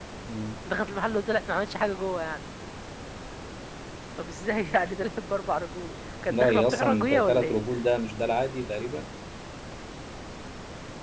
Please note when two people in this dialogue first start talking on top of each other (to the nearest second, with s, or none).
6 s